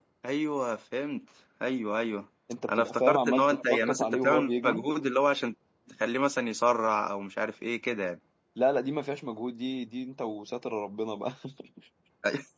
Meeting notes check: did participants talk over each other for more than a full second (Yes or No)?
Yes